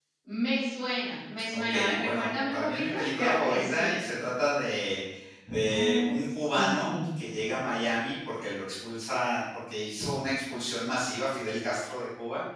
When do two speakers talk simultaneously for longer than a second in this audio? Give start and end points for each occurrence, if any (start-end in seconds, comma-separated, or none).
1.5-4.0